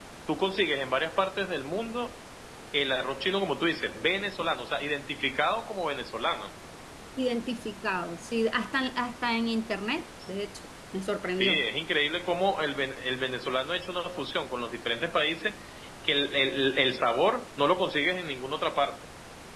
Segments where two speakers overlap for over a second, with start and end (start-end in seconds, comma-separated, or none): none